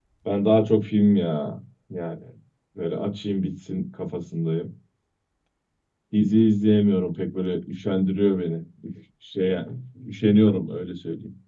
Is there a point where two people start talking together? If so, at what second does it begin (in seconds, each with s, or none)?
none